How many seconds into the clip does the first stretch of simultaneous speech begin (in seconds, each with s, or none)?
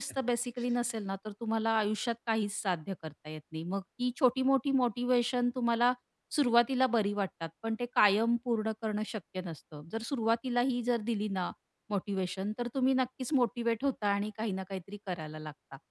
none